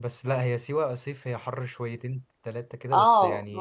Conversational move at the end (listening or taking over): taking over